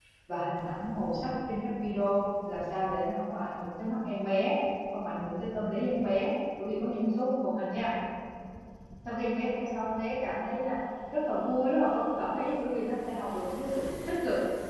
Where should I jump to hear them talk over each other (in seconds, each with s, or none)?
none